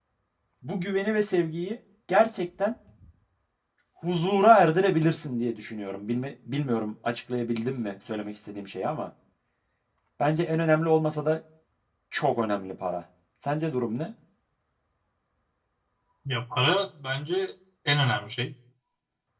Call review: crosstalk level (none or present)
none